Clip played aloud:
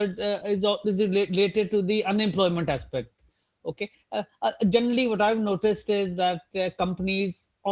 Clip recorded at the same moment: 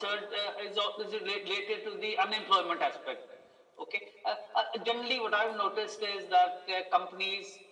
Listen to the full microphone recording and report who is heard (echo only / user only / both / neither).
echo only